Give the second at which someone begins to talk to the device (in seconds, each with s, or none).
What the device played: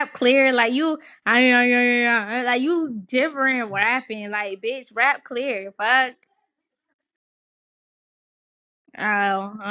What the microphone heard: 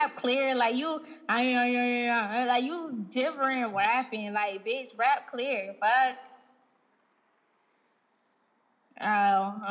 none